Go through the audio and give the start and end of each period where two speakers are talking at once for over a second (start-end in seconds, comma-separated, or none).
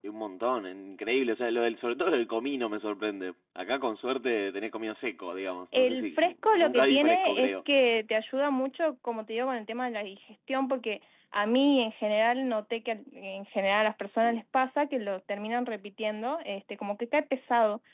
5.7-7.5